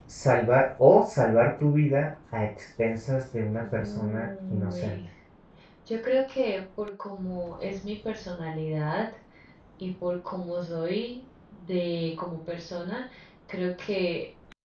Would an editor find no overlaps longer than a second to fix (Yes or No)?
No